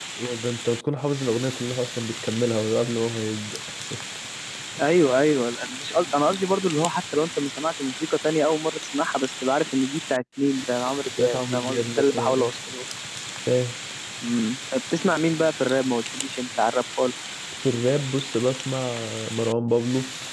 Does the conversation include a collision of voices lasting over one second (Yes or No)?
Yes